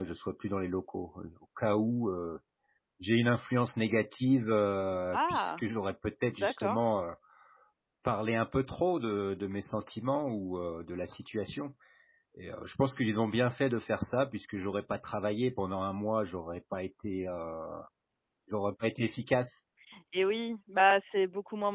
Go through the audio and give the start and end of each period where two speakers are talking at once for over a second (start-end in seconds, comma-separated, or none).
none